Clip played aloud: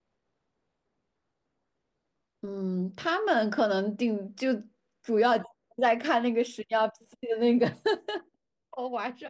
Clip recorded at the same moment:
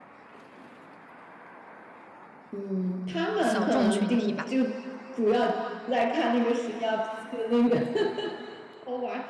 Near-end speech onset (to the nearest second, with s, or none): 3 s